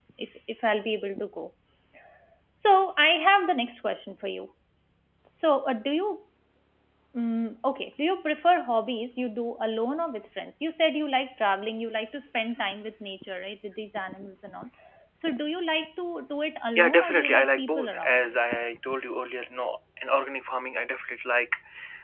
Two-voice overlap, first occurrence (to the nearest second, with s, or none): 17 s